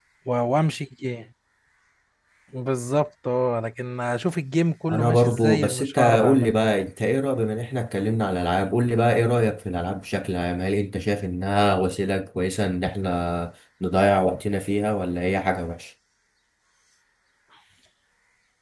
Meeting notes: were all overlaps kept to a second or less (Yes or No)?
No